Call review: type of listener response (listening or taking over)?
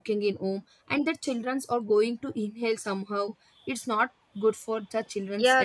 taking over